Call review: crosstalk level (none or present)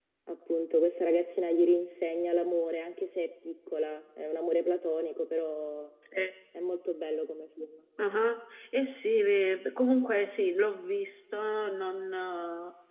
none